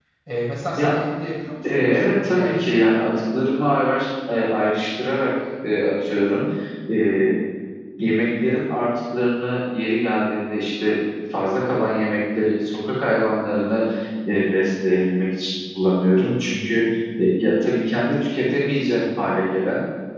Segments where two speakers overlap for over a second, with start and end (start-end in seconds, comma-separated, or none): 1.6-3.0